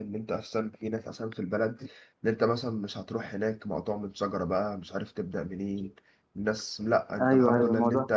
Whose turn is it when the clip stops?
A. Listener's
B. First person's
A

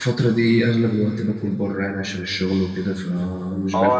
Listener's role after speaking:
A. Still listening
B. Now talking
B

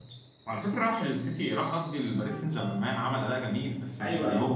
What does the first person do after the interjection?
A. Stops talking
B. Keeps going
A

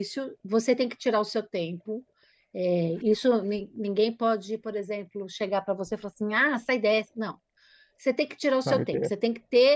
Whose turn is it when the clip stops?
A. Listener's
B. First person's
B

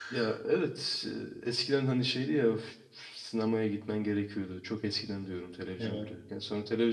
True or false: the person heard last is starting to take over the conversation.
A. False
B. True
A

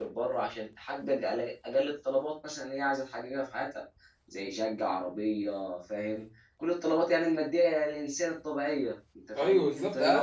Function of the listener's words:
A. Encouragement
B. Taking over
B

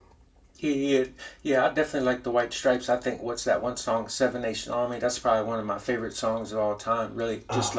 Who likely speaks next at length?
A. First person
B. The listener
A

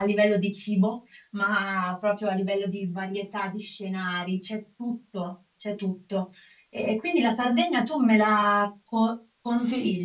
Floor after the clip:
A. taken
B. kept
A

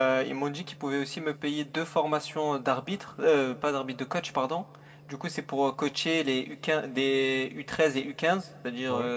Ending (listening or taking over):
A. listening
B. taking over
A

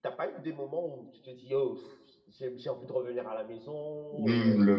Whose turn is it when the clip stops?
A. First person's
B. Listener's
B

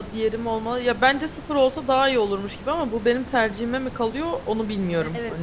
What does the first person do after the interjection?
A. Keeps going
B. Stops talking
B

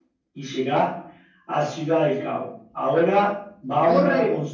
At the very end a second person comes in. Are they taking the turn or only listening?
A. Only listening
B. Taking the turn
B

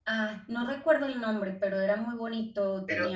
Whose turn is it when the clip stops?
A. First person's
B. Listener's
A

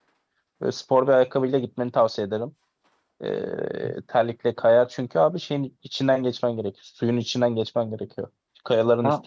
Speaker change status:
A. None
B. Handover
A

